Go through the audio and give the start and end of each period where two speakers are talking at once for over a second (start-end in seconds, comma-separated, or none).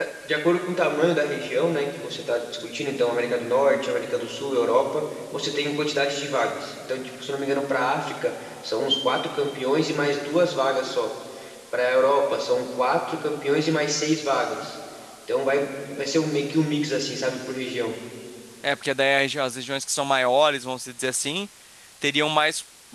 none